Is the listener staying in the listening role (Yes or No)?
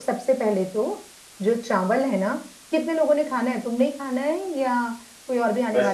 No